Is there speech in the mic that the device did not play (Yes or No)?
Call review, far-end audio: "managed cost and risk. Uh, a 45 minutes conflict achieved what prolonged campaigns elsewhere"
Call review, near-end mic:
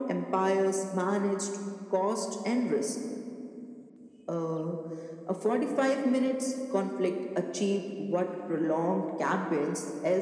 No